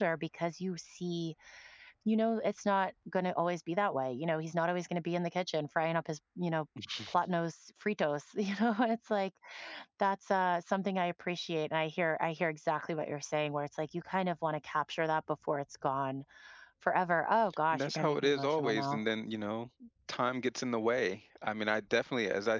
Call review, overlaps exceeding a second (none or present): present